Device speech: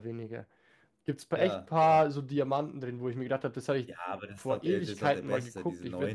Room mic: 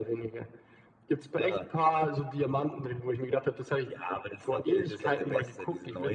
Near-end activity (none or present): none